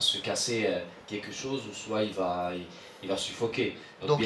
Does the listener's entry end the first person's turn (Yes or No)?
Yes